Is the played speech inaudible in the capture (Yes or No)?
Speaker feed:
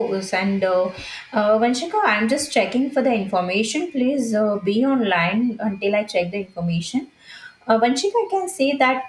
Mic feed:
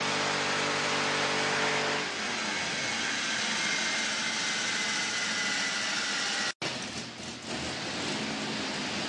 Yes